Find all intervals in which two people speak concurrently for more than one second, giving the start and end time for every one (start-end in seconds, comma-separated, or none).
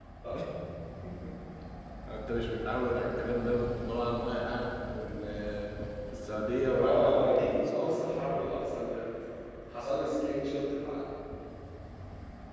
6.7-8.0